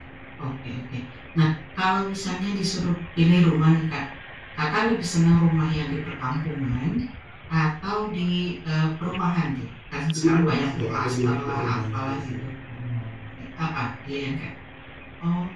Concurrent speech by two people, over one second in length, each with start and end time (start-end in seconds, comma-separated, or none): 10.2-12.4